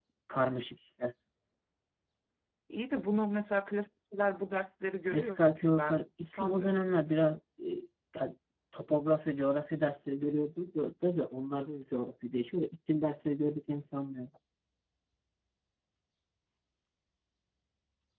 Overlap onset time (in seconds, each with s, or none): 5.0 s